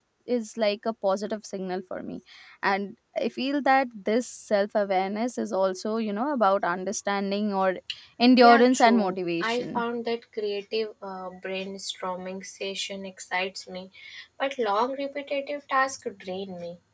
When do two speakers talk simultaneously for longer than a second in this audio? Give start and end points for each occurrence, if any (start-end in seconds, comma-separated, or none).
8.4-9.8